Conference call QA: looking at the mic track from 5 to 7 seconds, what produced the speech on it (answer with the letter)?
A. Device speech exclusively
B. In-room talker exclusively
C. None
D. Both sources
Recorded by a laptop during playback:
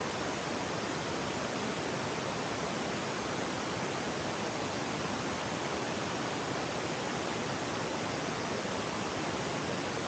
C